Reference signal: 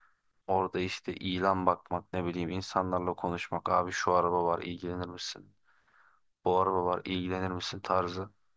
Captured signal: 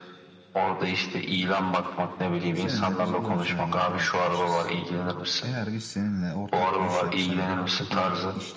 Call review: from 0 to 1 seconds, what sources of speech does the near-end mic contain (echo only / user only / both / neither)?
echo only